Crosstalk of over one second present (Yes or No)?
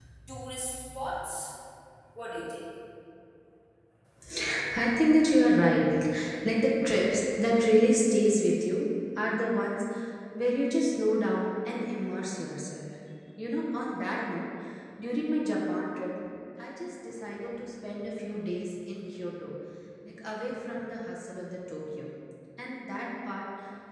No